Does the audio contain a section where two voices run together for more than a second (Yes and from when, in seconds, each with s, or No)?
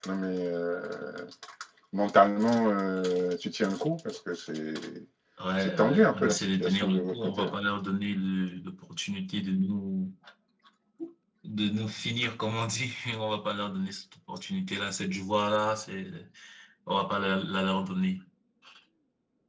Yes, from 5.8 s